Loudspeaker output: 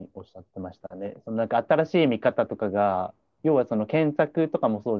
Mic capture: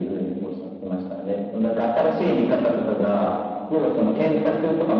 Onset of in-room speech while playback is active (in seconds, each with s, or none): none